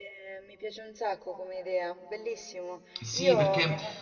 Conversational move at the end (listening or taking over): taking over